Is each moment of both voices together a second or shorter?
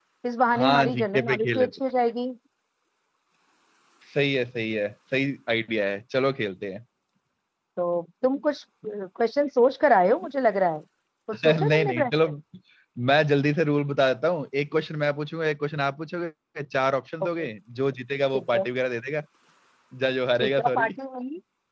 No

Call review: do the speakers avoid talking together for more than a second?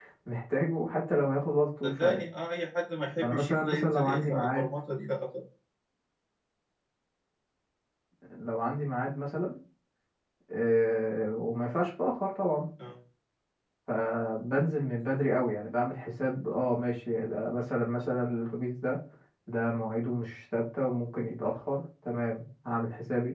No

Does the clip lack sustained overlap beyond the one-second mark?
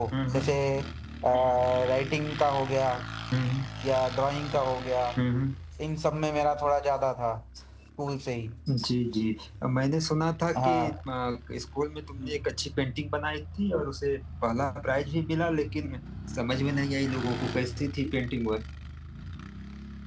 Yes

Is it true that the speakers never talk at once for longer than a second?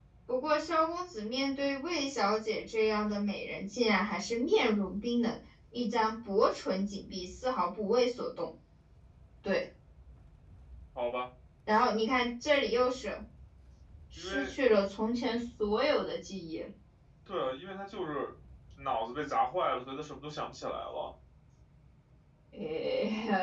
Yes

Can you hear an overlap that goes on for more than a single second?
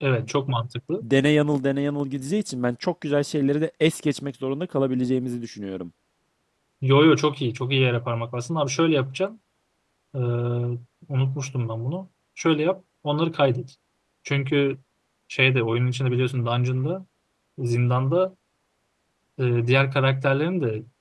No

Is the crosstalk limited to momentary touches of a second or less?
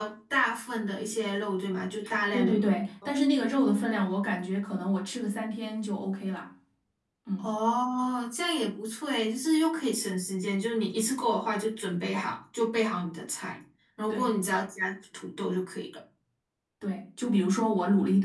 Yes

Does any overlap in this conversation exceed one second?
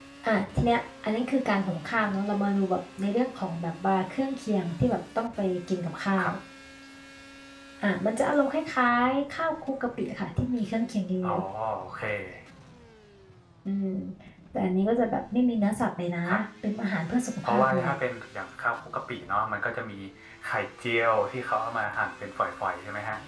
No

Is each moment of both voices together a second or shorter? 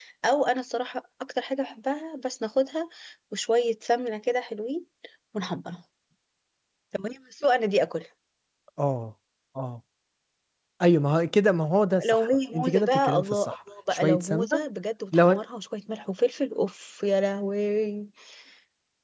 No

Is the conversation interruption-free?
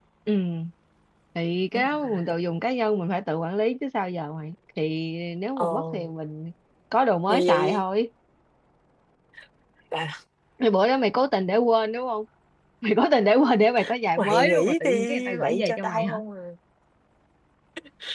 No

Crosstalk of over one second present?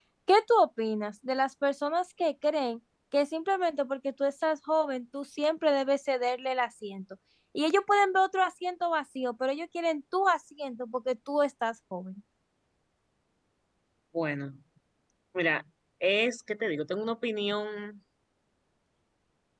No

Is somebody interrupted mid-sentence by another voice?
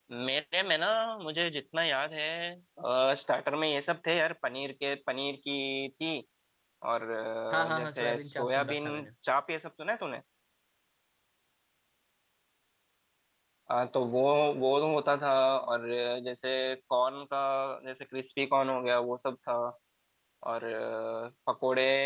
Yes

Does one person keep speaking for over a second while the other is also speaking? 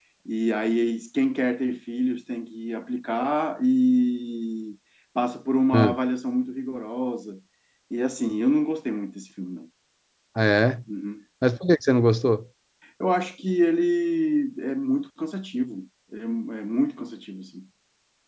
No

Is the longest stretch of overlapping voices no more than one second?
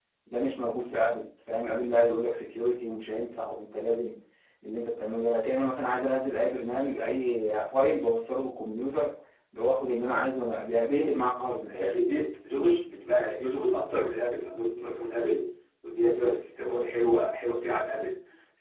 Yes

